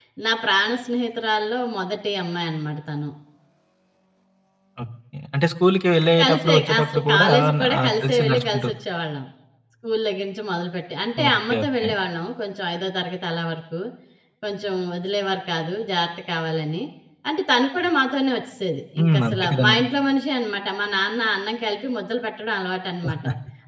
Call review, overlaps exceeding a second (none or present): present